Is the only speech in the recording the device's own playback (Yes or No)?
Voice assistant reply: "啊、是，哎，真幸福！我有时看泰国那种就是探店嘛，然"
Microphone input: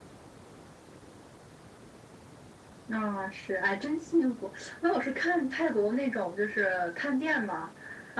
Yes